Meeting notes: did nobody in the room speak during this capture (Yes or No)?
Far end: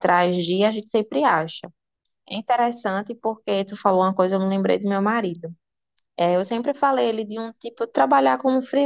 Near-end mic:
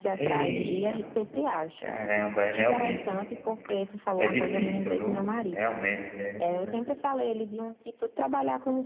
No